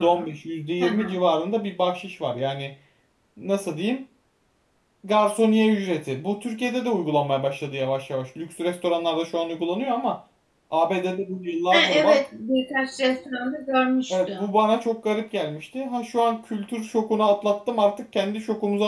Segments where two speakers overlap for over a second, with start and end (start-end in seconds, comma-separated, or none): none